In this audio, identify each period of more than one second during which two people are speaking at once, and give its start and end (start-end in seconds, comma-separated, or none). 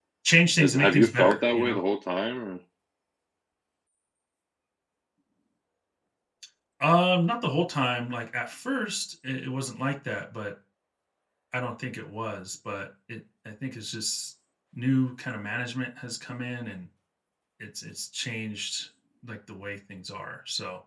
0.6-1.8